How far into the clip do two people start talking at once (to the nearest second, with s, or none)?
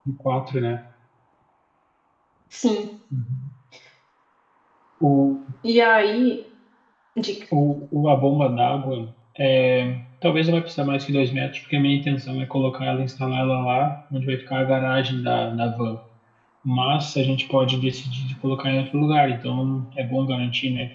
none